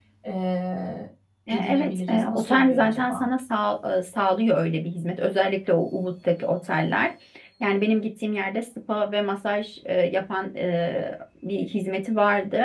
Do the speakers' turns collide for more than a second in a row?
Yes, from 1.5 s

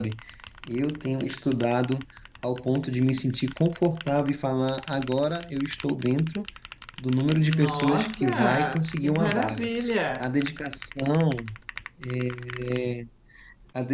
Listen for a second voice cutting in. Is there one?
Yes, from 7.6 s

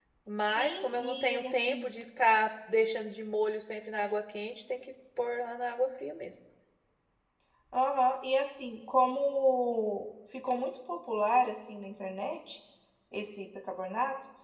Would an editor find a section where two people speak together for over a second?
Yes, from 0.5 s

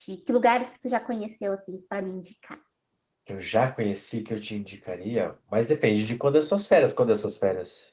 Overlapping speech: No

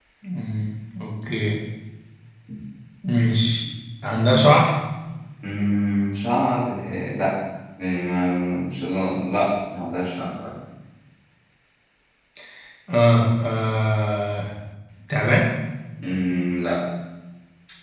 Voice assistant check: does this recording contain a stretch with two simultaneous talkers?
No

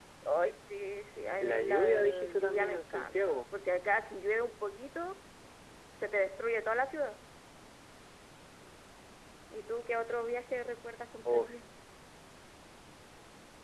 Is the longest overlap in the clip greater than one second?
Yes, from 1.4 s

